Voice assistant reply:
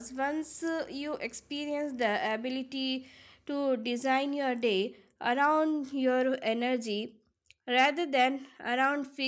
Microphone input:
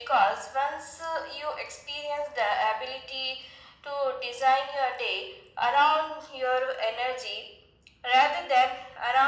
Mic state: echo only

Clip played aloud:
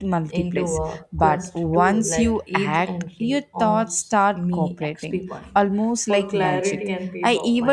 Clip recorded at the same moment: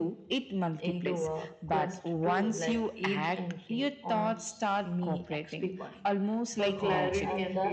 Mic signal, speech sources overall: both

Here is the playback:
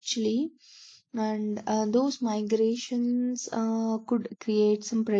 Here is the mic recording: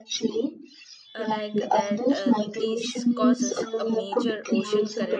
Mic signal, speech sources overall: both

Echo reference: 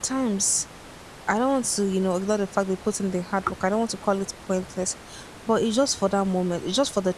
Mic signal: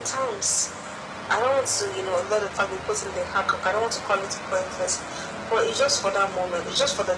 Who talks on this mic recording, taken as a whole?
echo only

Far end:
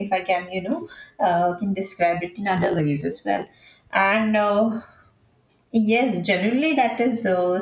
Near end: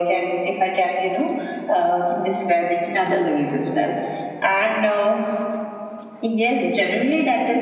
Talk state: echo only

